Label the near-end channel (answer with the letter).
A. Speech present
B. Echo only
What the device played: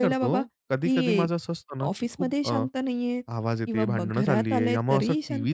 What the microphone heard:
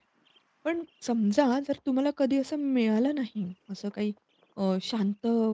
A